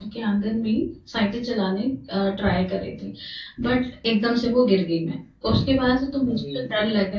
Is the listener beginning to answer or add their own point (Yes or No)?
No